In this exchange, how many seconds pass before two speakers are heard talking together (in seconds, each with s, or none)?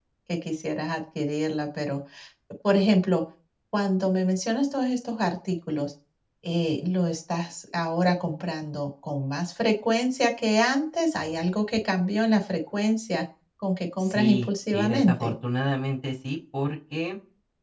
14.0 s